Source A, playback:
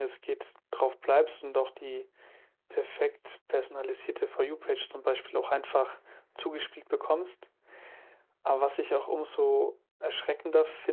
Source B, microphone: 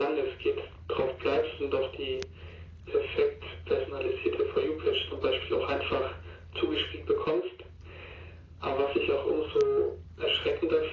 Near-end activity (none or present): none